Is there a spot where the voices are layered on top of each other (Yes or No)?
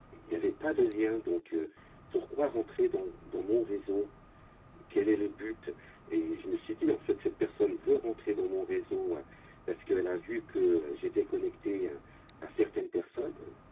No